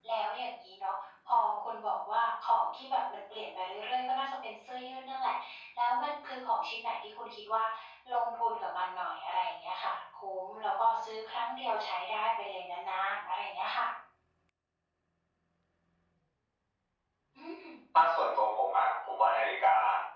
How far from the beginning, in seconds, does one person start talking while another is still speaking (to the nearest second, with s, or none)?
none